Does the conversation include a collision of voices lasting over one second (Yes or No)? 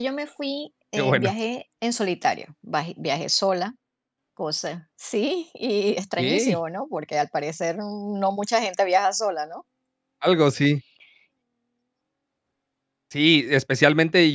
No